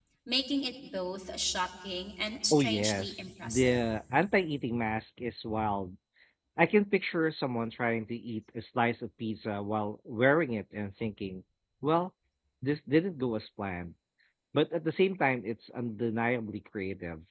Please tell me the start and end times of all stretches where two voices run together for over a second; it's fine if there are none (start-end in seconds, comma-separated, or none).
2.5-3.8